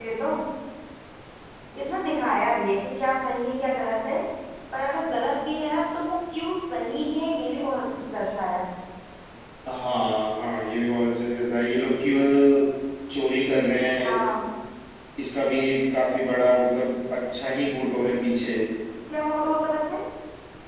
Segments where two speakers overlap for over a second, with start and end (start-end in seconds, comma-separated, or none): none